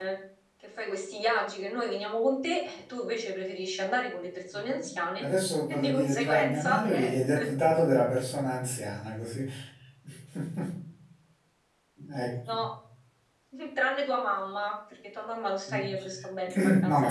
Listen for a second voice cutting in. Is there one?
Yes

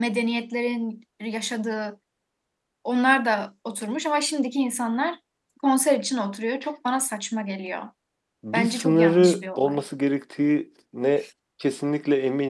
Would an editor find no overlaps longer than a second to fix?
No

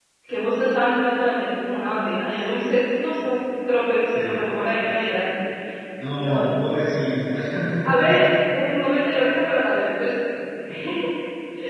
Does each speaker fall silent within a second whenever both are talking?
Yes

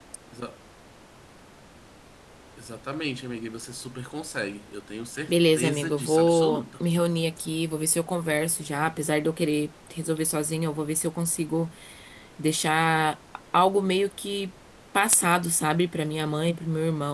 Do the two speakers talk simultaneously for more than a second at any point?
Yes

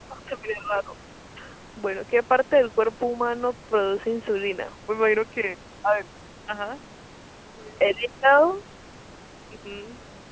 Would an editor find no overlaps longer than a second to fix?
Yes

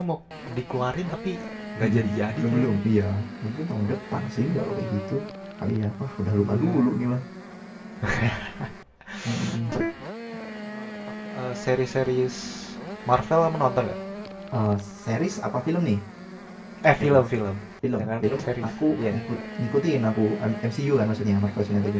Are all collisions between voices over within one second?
No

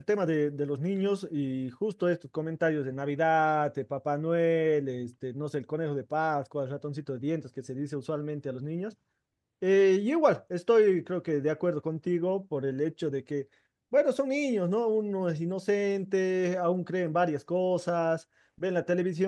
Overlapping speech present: No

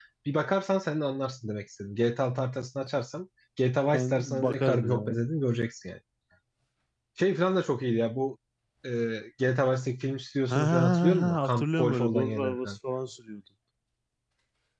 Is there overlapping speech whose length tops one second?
Yes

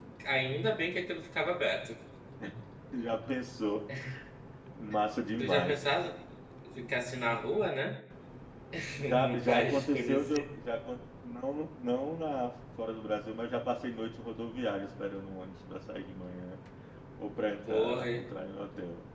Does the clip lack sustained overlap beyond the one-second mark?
No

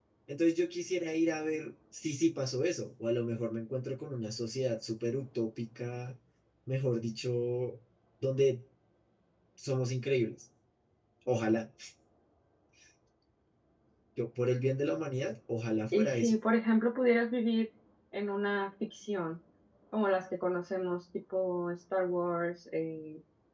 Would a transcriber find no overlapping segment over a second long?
Yes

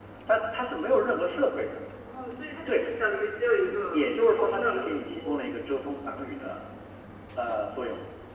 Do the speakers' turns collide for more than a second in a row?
Yes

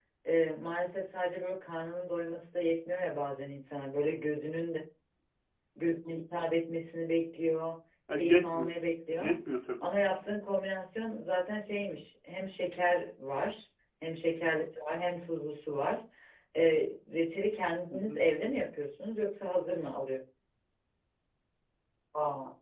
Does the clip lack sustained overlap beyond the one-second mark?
Yes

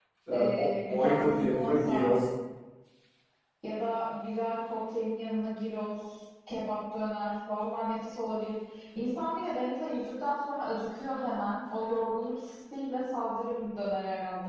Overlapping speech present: Yes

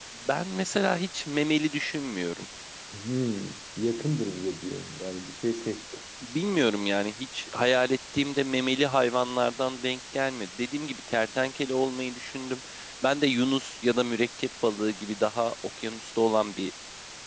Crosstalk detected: No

